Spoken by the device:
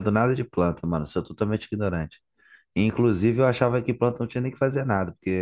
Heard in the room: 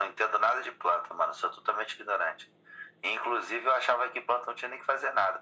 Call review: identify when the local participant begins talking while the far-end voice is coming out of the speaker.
none

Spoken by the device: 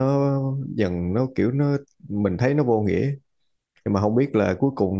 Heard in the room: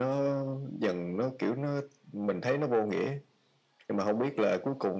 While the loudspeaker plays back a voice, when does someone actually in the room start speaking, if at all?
none

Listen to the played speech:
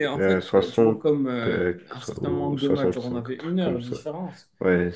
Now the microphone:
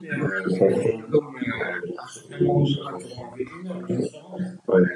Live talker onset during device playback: none

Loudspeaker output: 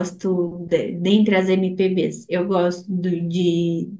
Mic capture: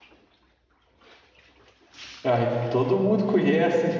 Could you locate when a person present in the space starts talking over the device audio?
2.2 s

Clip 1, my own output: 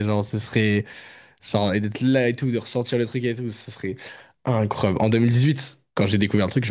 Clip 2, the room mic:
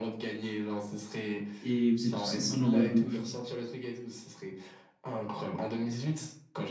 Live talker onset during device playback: 1.6 s

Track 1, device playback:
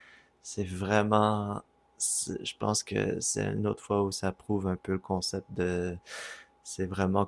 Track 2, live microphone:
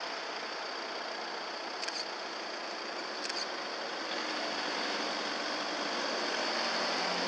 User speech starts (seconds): none

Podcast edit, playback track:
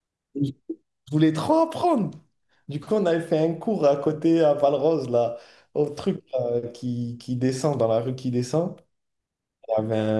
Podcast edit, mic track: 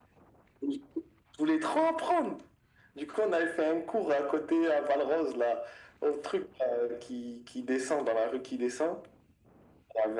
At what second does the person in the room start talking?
none

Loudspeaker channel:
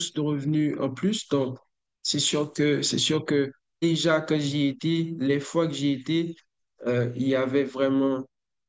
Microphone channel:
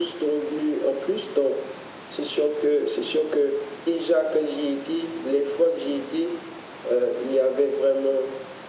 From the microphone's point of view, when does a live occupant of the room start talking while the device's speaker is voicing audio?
none

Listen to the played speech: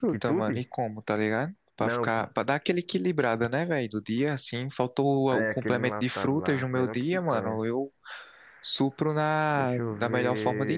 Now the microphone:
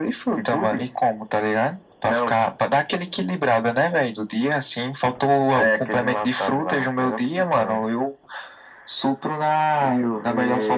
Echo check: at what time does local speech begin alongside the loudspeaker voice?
none

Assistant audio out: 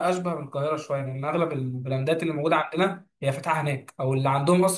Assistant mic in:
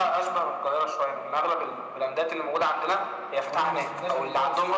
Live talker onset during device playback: 3.5 s

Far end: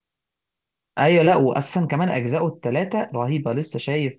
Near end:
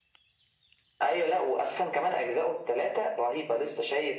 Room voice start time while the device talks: none

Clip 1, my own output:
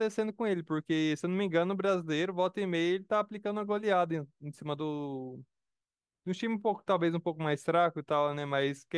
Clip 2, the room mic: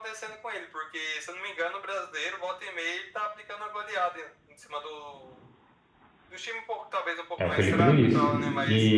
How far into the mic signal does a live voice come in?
7.4 s

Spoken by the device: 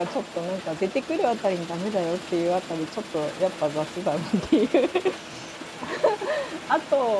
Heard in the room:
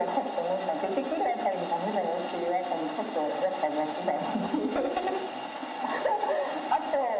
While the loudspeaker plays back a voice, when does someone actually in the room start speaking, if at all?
none

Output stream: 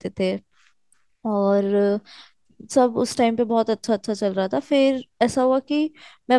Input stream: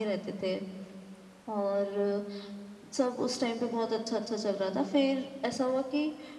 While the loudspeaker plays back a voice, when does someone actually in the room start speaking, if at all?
none

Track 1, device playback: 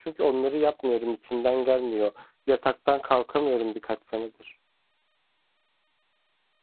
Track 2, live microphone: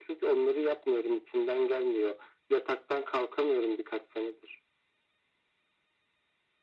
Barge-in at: none

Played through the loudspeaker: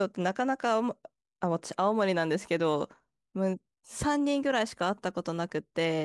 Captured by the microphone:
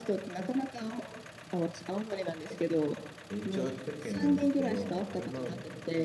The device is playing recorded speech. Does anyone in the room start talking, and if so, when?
3.3 s

